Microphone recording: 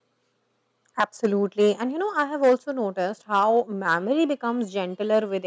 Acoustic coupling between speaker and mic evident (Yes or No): No